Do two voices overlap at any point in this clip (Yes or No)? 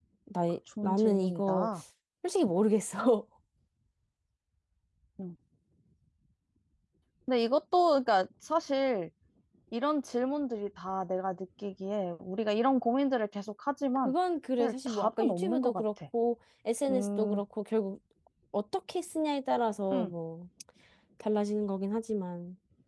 Yes